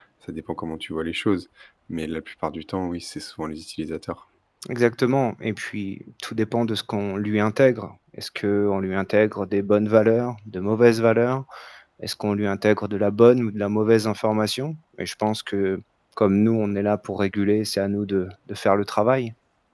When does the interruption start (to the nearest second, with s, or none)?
none